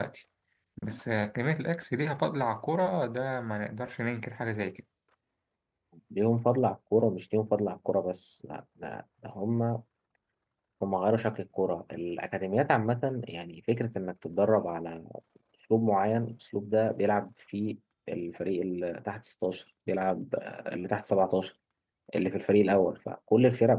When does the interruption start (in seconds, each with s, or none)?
none